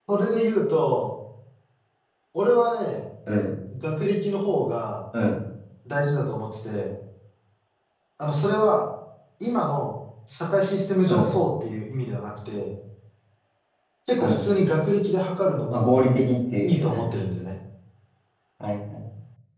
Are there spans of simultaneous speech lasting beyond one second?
No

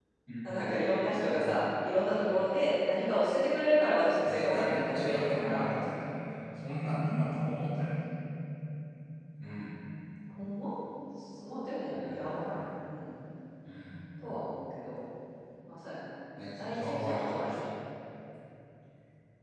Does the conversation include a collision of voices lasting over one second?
Yes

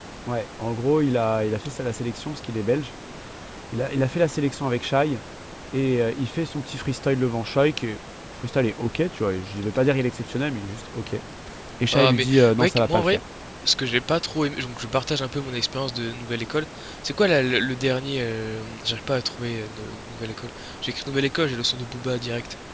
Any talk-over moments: Yes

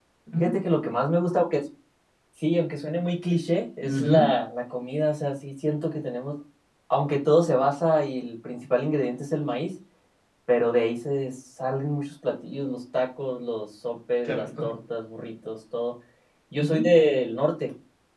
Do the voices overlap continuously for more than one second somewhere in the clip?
No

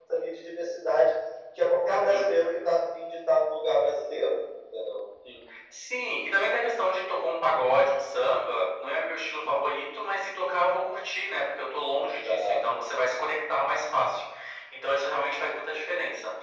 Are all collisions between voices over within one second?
Yes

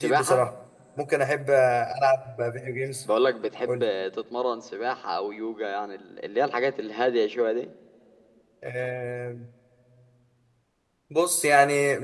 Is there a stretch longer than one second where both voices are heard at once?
No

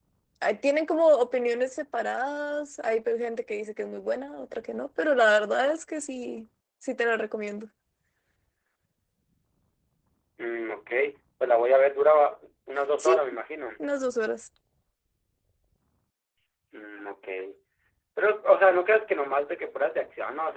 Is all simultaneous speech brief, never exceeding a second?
Yes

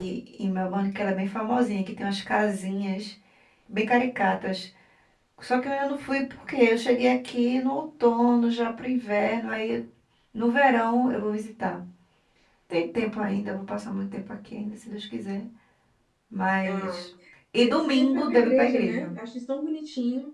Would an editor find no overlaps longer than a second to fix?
No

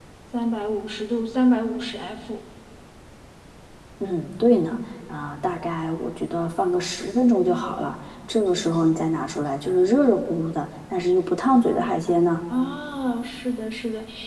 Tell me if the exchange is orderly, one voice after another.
Yes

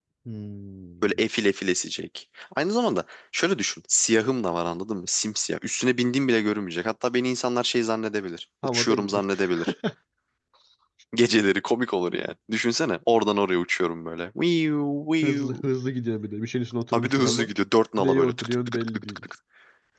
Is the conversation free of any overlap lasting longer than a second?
No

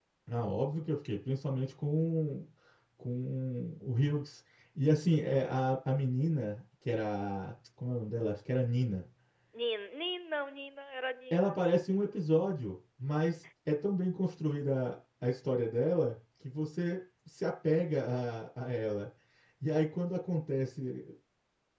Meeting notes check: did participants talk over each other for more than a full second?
No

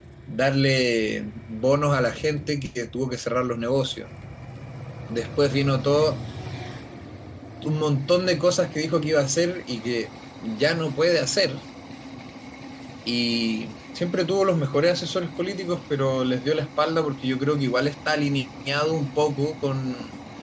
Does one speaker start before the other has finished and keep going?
No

